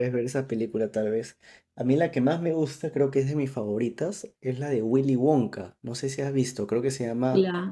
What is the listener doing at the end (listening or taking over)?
taking over